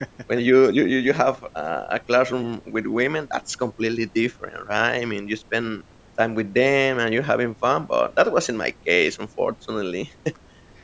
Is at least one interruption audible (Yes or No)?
No